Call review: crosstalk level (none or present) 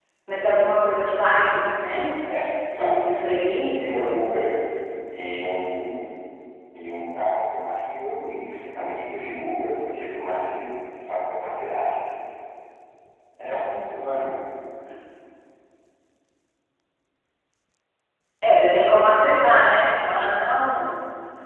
present